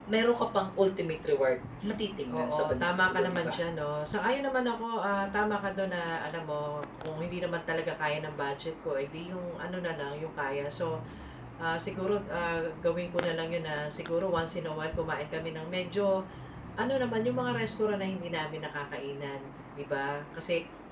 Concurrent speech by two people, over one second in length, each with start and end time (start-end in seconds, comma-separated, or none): 2.3-3.6